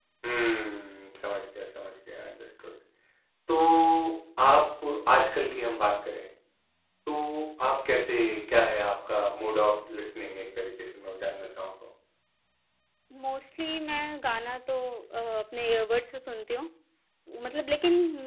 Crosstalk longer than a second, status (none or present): none